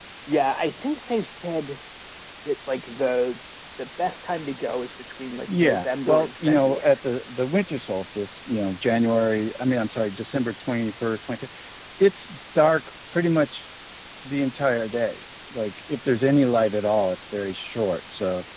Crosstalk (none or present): present